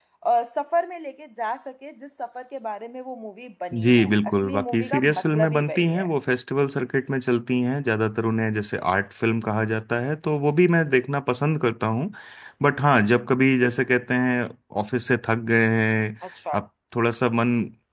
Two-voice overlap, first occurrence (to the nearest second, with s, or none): 4 s